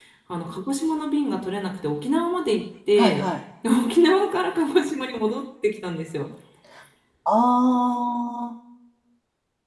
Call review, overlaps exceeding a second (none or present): none